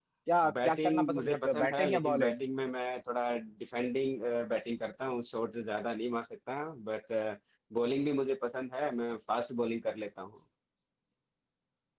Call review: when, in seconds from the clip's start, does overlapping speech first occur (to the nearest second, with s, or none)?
1 s